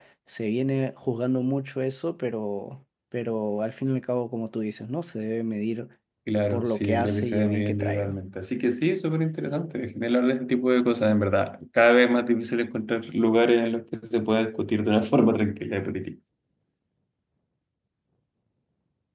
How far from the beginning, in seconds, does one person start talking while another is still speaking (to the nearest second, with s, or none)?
7 s